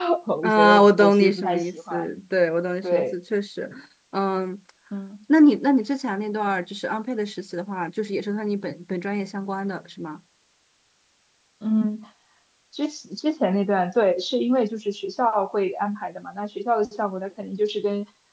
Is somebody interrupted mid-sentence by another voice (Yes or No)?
Yes